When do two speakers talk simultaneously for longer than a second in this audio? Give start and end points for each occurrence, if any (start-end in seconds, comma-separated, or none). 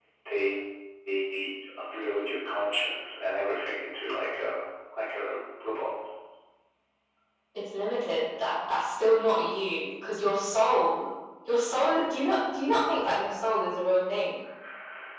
none